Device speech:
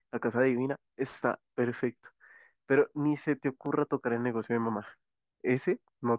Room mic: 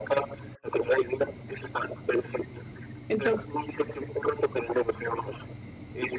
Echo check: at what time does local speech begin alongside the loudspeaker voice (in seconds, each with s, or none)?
3.1 s